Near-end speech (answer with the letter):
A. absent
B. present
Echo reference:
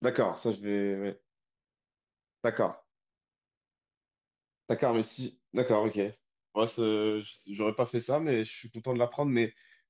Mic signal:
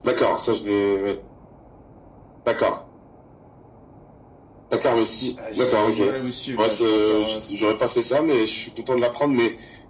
B